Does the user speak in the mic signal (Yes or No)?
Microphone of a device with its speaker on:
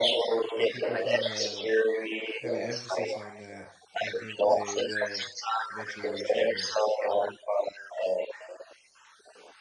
Yes